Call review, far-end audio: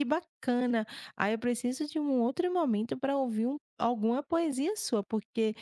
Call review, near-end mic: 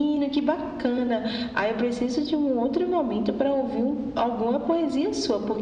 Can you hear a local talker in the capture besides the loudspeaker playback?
No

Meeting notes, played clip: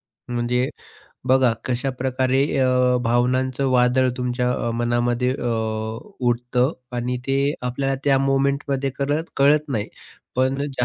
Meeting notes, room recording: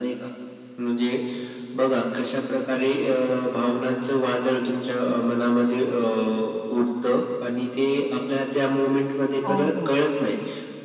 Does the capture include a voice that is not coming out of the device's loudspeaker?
Yes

